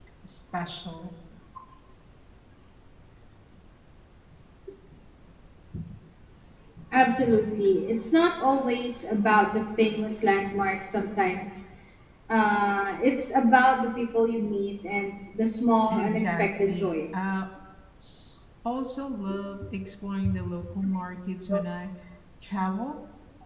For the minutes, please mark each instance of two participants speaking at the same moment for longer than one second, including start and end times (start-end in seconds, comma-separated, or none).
15.9-17.4